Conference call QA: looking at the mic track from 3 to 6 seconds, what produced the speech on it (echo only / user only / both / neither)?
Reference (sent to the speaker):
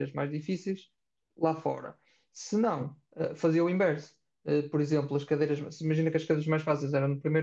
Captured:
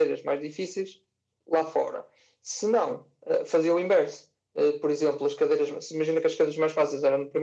echo only